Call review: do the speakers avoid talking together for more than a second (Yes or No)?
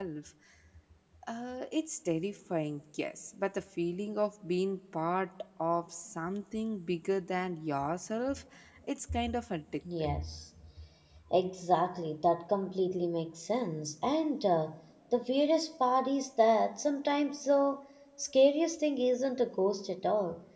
Yes